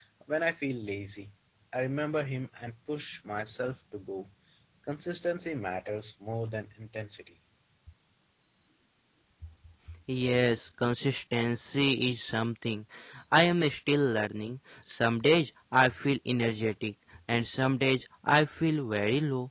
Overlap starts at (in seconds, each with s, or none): none